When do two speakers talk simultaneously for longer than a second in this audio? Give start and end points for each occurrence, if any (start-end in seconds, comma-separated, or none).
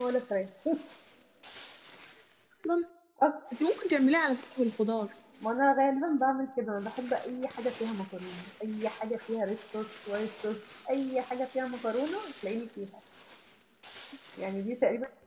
none